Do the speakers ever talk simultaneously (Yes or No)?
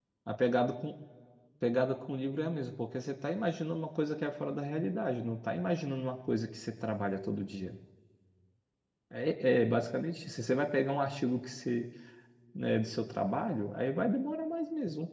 No